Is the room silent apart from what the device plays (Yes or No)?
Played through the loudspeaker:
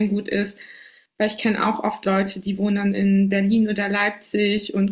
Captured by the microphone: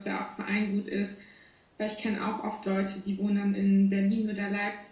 Yes